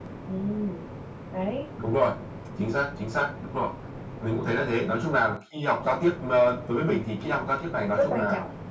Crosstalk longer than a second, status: none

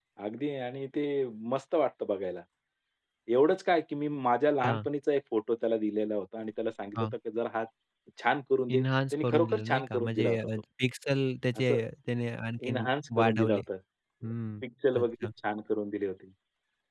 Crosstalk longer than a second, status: present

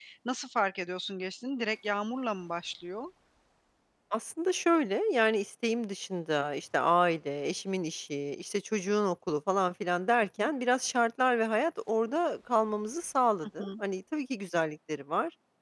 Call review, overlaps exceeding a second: none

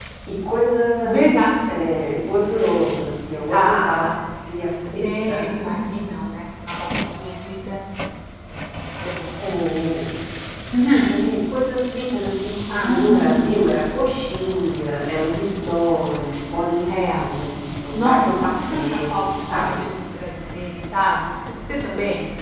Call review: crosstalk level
present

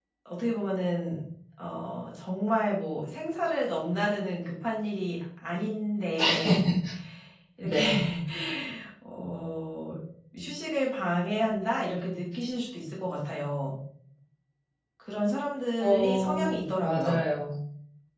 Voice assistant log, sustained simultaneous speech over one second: present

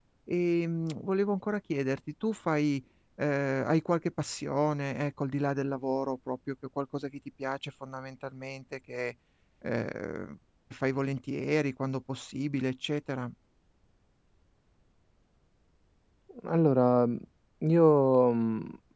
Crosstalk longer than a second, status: none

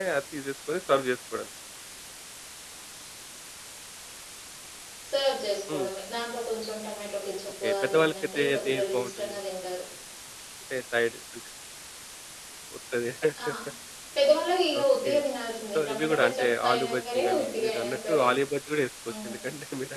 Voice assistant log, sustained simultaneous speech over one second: present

